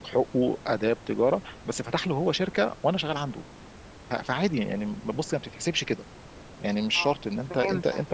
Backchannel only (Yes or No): Yes